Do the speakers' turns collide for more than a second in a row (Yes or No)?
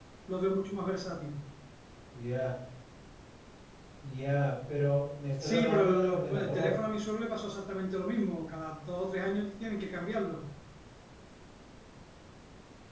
Yes